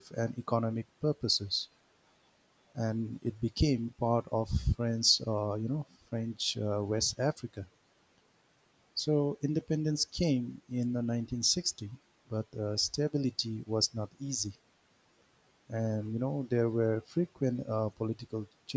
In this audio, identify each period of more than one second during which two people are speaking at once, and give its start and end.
none

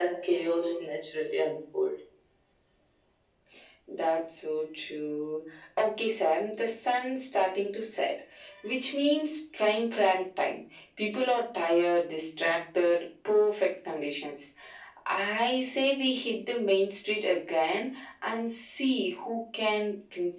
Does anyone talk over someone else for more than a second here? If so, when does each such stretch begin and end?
none

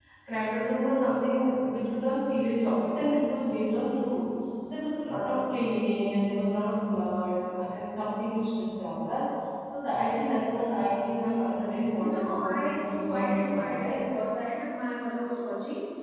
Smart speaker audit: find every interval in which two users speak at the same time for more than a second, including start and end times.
12.0-14.0

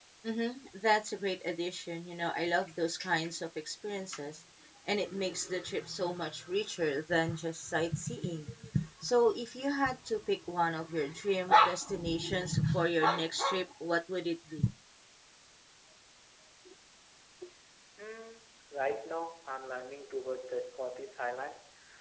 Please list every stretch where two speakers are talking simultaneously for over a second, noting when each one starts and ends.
none

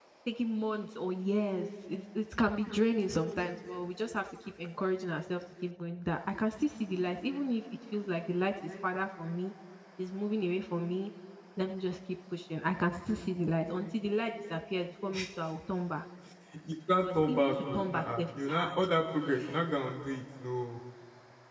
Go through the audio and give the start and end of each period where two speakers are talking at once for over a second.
17.0-18.7

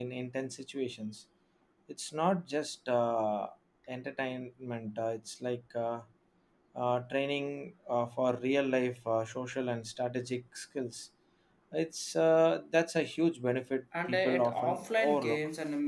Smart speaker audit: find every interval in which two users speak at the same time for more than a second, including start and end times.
14.1-15.4

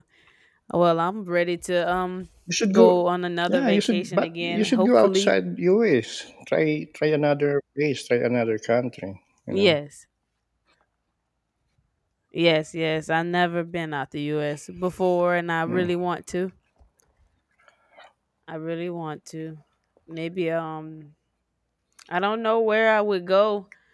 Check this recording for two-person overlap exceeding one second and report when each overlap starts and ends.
3.5-5.3

